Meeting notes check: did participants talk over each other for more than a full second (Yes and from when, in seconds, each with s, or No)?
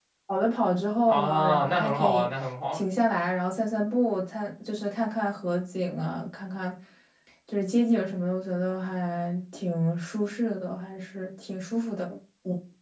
Yes, from 1.1 s